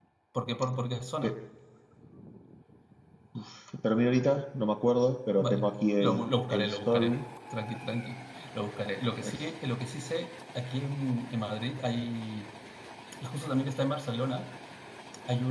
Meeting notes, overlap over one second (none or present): present